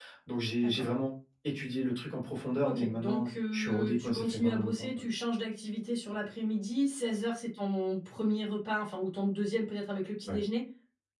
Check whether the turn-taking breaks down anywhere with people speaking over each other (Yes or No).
Yes